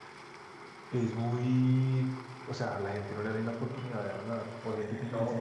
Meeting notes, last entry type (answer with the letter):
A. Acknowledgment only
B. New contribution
B